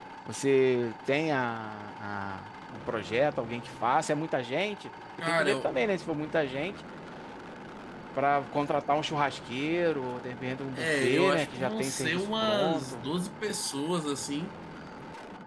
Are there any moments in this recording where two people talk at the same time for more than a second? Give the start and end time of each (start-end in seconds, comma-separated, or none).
10.8-13.0